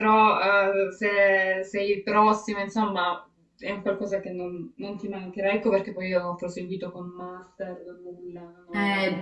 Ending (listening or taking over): taking over